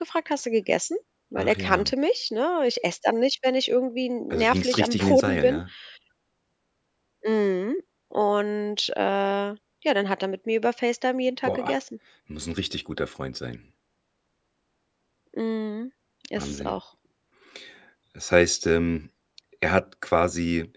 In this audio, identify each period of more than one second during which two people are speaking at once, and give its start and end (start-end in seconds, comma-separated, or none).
4.3-5.6